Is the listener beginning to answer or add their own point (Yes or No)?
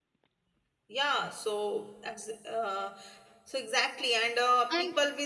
No